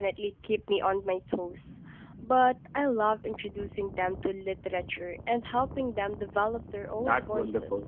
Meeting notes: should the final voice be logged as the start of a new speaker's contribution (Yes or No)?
Yes